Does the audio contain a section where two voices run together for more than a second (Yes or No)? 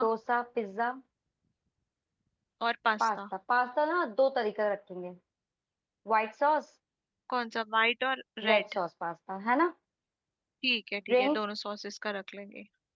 No